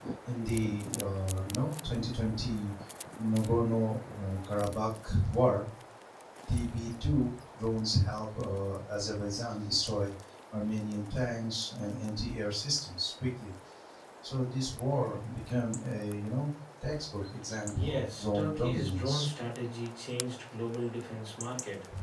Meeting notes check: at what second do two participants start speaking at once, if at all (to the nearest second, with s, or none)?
18 s